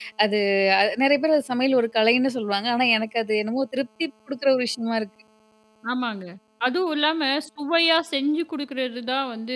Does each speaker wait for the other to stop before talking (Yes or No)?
Yes